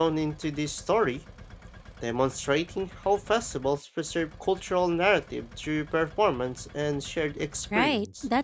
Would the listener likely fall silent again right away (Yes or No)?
No